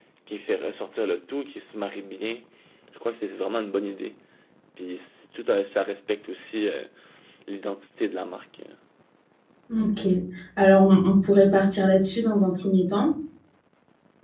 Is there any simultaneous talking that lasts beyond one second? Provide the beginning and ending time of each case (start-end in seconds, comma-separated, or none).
none